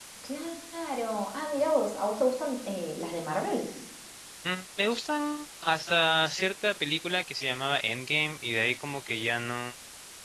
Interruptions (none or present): none